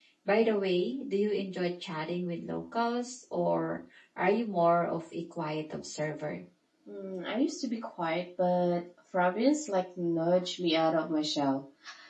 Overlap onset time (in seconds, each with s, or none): none